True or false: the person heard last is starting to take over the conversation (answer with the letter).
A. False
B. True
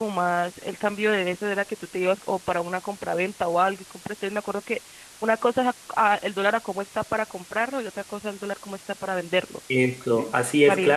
B